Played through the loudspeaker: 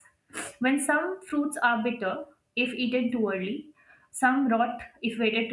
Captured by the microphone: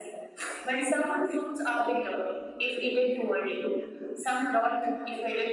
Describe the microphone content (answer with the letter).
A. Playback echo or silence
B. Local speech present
A